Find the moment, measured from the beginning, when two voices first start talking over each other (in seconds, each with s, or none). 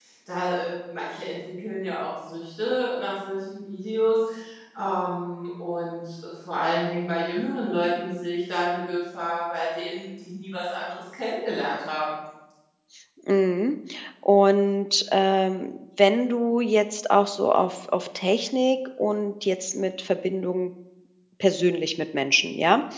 none